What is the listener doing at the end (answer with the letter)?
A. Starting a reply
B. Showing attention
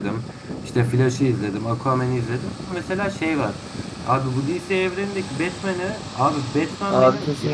B